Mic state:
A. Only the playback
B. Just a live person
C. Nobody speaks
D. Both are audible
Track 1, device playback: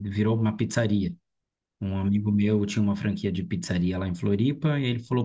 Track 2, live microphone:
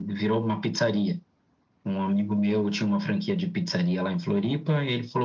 A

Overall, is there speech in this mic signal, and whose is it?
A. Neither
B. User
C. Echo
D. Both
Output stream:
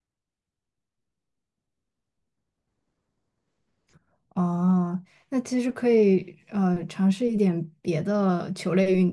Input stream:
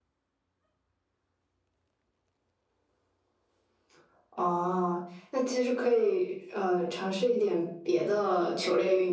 C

